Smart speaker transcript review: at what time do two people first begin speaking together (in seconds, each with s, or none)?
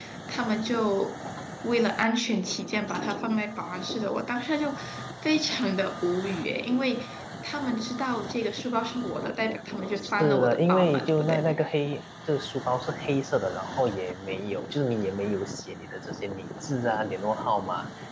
10.0 s